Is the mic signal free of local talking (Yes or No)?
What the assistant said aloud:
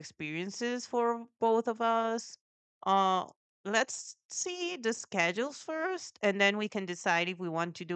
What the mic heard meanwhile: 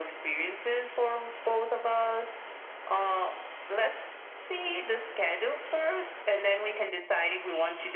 Yes